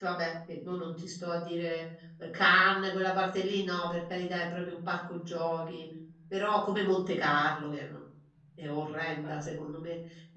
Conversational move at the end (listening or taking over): listening